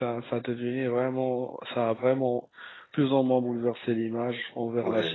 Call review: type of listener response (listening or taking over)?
taking over